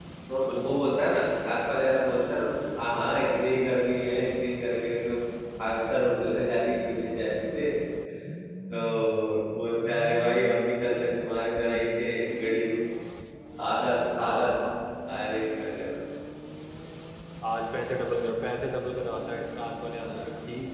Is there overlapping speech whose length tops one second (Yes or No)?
No